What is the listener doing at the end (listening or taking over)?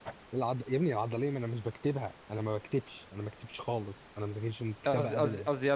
taking over